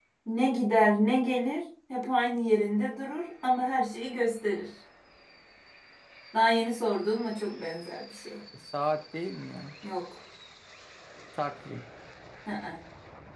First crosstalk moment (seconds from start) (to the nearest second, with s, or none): none